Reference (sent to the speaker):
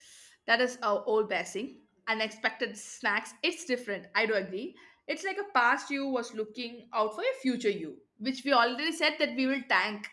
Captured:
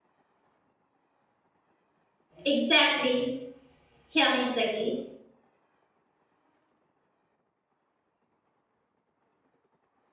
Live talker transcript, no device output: Exactly. Yeah, exactly.

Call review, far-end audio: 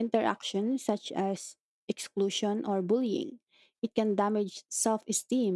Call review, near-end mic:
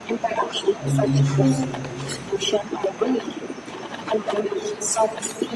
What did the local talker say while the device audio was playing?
and emotional regulation.

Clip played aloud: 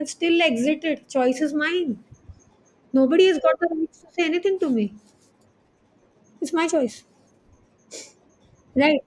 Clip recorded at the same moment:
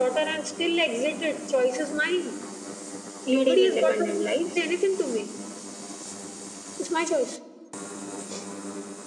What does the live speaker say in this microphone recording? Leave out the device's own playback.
leading independent lives.

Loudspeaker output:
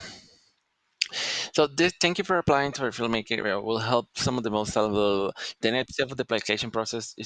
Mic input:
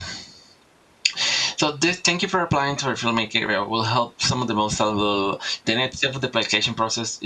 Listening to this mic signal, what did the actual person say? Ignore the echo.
none

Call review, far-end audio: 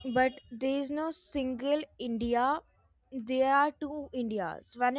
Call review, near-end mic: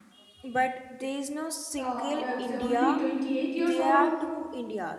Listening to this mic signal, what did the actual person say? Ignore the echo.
uh, i would say only 28 years old

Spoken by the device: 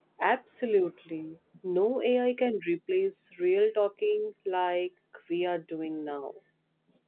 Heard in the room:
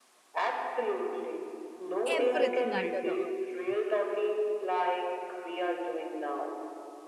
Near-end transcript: everything under the earth.

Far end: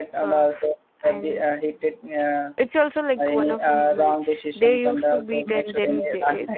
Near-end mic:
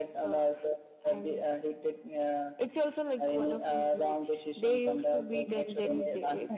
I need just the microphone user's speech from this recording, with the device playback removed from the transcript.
none

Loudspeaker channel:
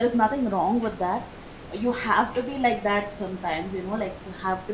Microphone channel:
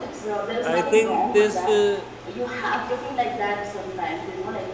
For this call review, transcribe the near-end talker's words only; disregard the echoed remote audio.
I think this uh,

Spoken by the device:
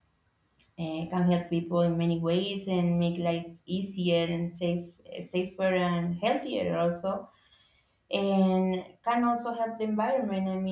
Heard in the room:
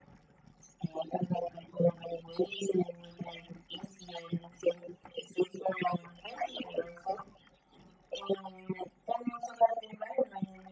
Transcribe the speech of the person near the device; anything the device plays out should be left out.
none

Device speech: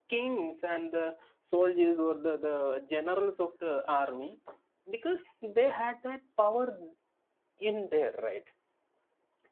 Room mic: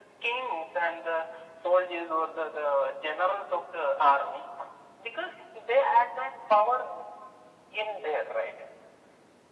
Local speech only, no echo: none

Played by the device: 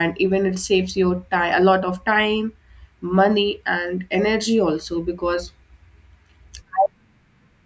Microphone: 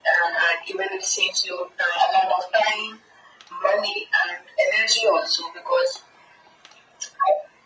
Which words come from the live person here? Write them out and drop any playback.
none

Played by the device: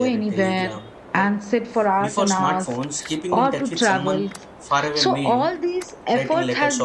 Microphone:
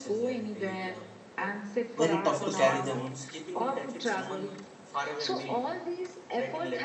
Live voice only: very tough to carry them

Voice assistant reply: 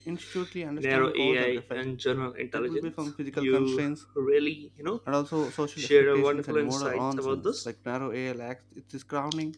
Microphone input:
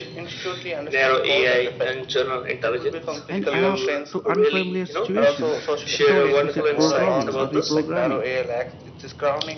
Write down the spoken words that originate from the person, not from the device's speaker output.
and adapt to unfamiliar situations without explicit programming or reprogramming

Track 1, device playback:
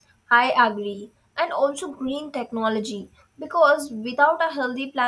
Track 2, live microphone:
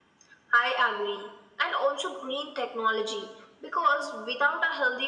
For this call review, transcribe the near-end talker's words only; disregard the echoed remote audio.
none

